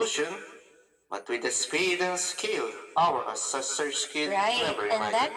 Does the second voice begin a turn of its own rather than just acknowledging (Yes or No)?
Yes